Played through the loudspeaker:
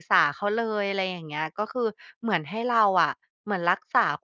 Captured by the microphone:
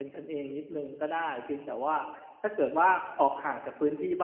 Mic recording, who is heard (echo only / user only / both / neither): user only